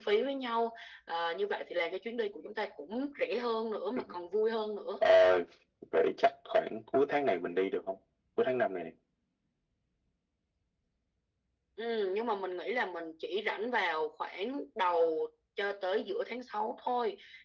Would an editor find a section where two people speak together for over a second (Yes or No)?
No